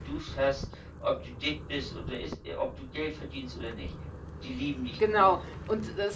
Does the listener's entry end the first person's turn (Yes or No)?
Yes